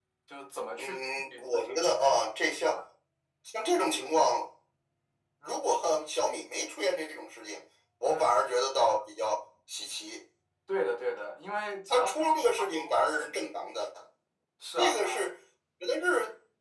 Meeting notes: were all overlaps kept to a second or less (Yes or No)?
No